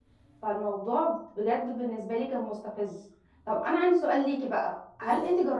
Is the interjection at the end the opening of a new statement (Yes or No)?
No